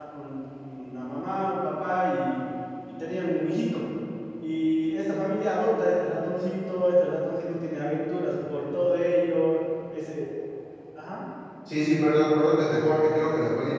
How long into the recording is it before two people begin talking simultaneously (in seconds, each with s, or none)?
none